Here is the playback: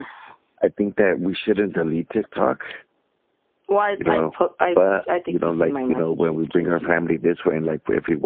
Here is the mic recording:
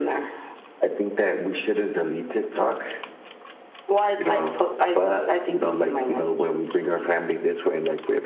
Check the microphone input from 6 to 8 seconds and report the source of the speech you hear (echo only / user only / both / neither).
echo only